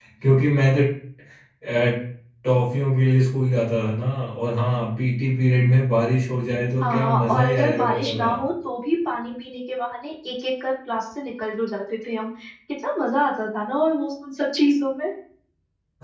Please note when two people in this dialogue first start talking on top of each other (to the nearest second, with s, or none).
7 s